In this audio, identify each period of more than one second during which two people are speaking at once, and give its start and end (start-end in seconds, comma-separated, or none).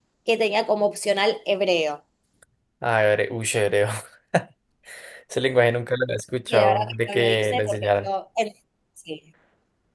6.5-8.1